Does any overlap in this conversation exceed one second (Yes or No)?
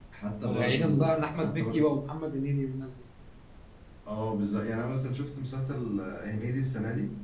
Yes